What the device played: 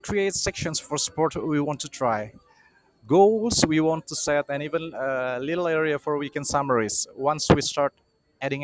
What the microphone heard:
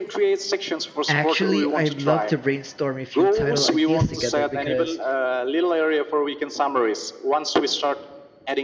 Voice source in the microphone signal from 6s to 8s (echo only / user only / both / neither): echo only